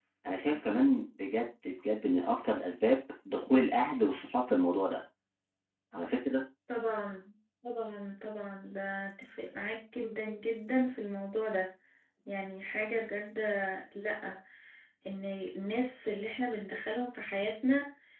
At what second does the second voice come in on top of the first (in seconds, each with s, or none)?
none